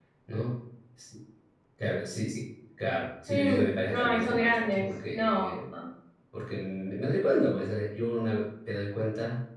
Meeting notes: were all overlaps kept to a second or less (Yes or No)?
No